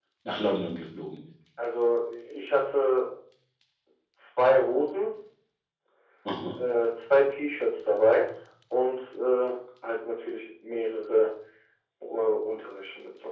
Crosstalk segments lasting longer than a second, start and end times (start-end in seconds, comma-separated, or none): none